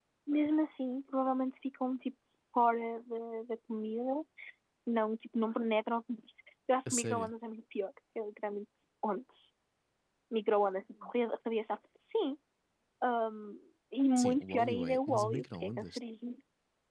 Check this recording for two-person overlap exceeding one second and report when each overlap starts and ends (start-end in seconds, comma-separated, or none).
14.2-16.0